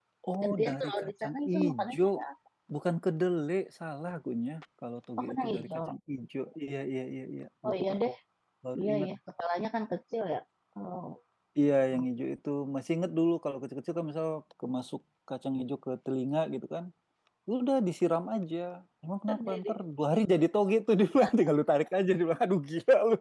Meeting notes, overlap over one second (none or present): present